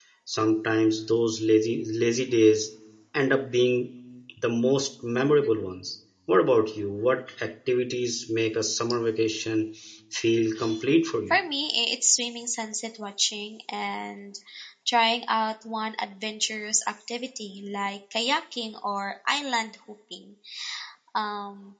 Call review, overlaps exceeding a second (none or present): none